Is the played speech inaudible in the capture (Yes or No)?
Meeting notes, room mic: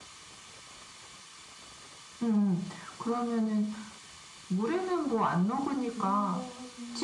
No